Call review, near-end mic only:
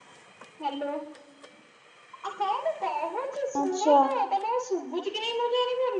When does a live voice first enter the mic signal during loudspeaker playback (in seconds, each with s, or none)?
3.6 s